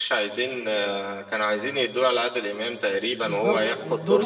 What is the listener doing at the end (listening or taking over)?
taking over